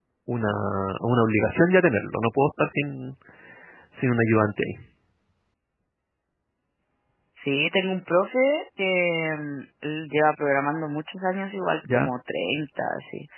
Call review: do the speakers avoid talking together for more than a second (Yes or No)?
Yes